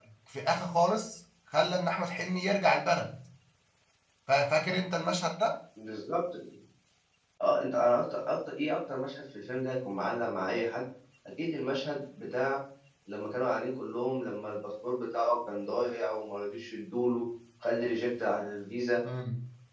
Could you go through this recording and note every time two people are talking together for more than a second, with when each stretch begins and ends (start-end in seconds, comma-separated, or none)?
none